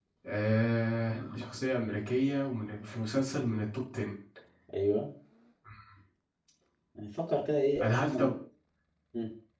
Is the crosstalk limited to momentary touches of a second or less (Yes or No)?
Yes